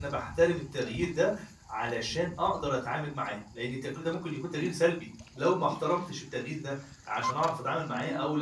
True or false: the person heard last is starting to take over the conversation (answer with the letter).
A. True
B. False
B